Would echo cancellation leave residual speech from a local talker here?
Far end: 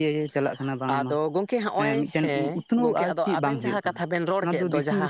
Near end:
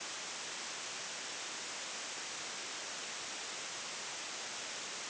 No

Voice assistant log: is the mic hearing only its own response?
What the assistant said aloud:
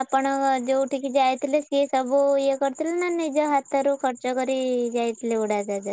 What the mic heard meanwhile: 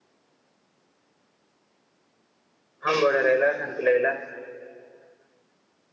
No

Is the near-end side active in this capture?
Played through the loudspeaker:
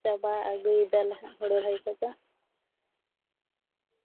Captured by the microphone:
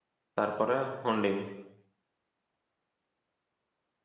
Yes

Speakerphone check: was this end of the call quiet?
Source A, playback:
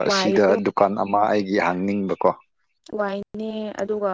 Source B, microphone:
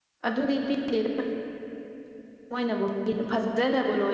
No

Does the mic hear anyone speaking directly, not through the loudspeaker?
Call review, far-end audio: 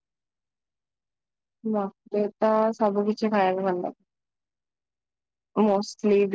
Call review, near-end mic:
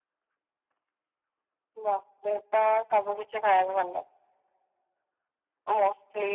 No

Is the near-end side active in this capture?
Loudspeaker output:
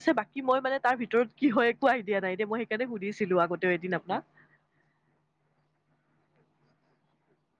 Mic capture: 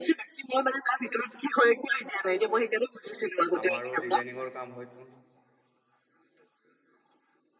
Yes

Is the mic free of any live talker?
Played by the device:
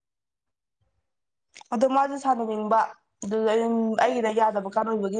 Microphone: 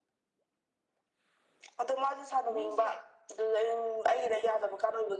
No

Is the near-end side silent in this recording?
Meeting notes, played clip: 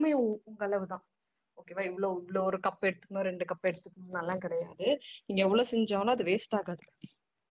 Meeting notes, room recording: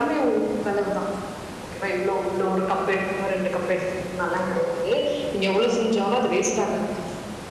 Yes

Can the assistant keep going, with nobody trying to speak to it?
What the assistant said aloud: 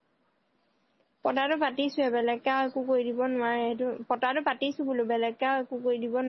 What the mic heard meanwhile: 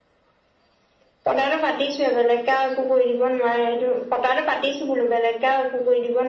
Yes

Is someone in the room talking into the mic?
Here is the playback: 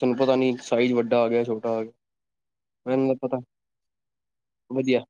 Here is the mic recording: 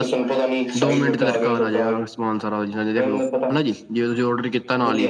Yes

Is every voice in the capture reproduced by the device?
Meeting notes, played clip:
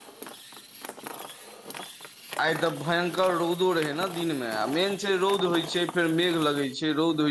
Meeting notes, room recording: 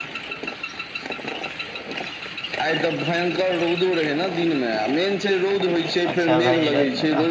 No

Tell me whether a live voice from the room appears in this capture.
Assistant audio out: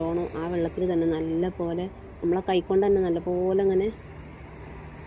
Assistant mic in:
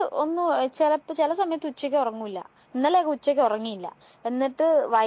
Yes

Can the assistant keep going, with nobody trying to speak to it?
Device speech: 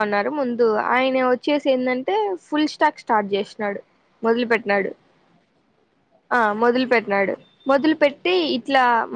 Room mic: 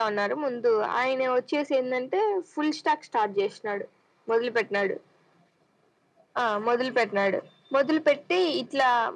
Yes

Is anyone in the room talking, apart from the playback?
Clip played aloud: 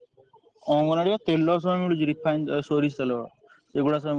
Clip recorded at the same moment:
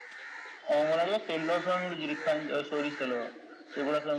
No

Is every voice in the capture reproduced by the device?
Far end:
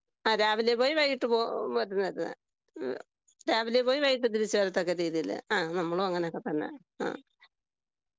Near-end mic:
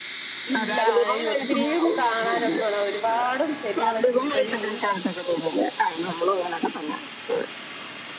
No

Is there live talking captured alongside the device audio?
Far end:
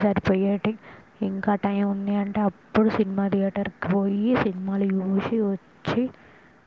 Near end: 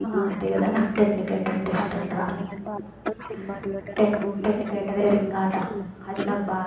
Yes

